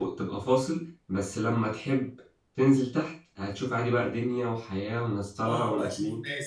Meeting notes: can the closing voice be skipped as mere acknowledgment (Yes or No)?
No